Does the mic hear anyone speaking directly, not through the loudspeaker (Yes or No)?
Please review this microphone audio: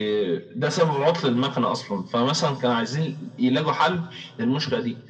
No